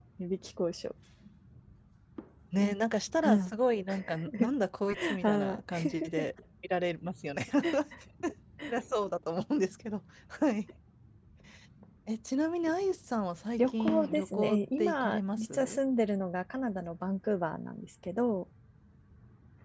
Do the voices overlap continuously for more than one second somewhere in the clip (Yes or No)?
Yes